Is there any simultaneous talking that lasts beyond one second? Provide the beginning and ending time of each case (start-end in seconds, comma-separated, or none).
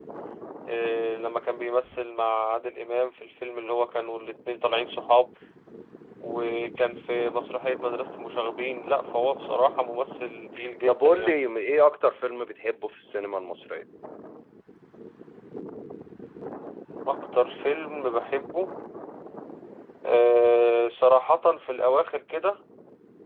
none